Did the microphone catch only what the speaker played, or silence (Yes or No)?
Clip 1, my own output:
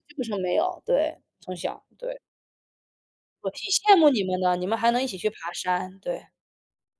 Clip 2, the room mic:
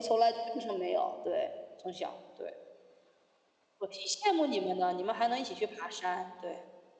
Yes